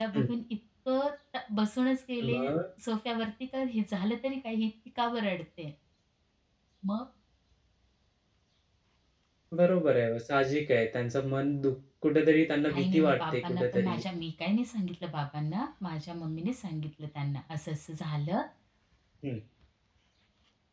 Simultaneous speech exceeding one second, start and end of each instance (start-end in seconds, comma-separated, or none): 12.7-14.0